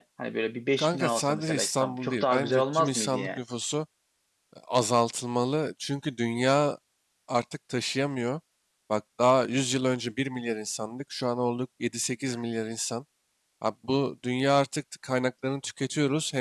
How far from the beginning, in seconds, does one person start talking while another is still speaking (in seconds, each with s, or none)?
0.8 s